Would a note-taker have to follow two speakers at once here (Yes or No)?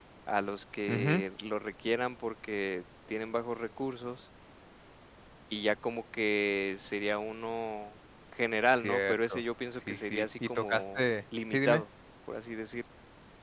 Yes